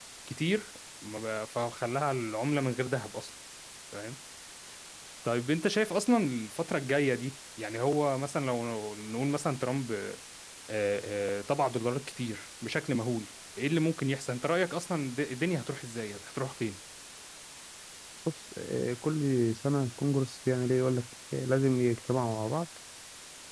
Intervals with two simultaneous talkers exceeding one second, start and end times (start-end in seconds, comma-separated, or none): none